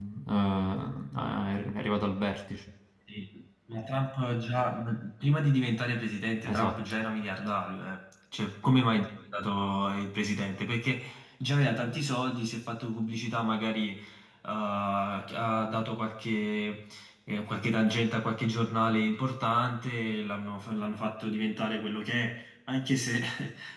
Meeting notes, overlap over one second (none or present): none